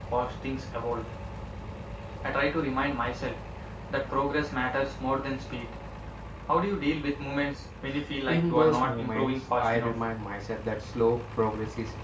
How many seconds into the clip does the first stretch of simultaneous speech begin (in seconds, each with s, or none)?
8.3 s